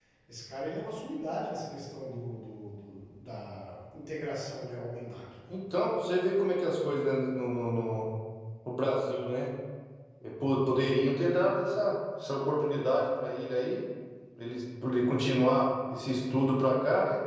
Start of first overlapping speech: none

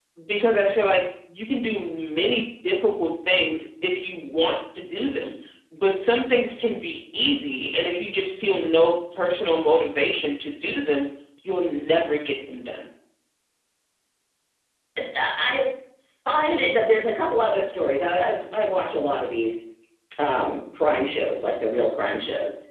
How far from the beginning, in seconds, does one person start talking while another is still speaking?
none

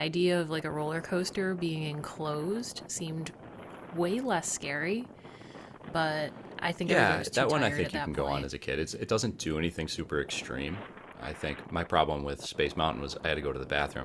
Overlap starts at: 6.9 s

